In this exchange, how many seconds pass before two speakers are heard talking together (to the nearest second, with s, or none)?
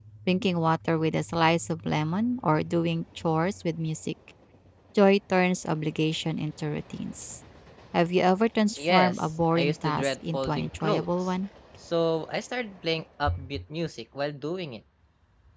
9 s